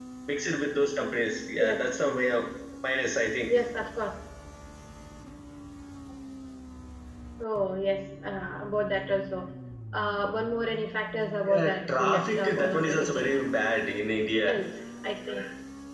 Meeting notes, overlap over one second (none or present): present